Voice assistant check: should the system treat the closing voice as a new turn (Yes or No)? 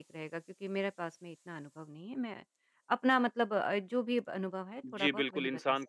Yes